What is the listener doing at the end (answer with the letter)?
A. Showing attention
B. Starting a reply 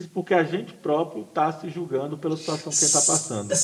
B